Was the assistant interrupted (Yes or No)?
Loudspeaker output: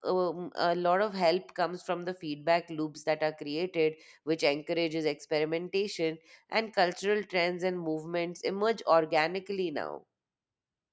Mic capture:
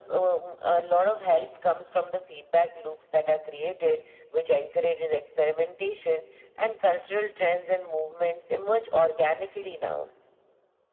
No